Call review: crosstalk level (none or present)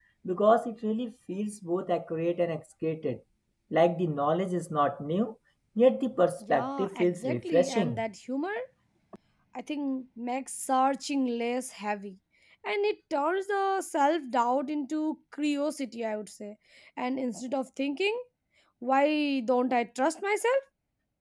present